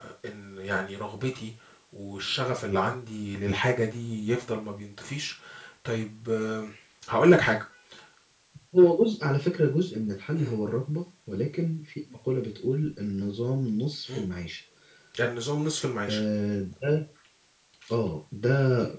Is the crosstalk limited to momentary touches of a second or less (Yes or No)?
Yes